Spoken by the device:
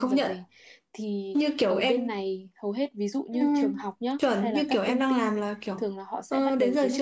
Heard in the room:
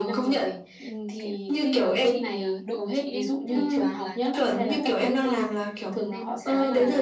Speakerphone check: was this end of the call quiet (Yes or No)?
No